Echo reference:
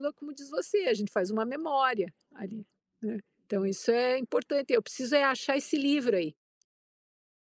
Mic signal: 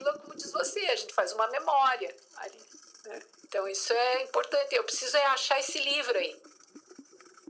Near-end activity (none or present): none